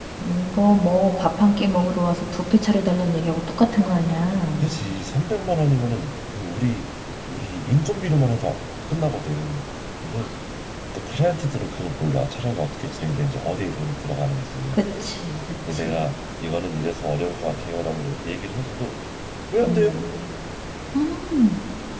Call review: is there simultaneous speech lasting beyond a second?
No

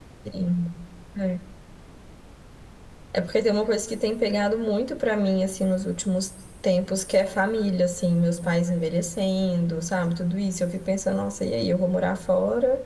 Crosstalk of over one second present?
No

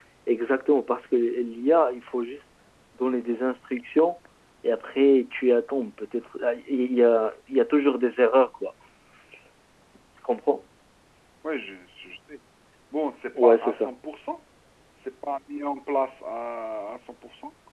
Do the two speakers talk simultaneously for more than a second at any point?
No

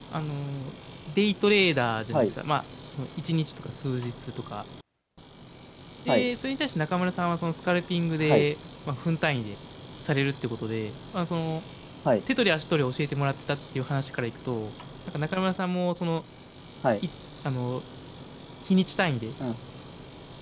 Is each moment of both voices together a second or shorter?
Yes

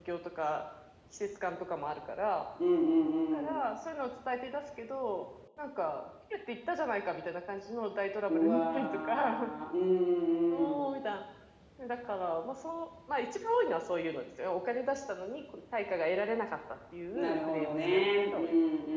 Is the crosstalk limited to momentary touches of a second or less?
No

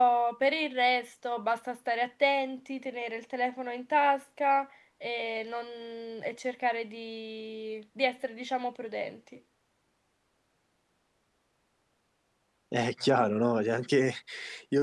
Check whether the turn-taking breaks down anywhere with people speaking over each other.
No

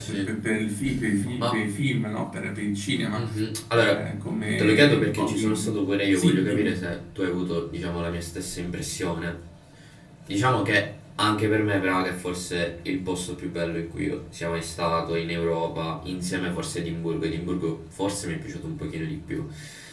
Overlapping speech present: Yes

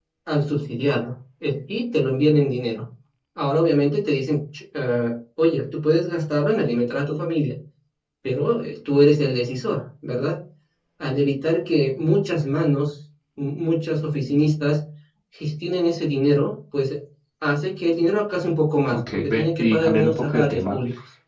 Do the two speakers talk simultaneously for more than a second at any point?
Yes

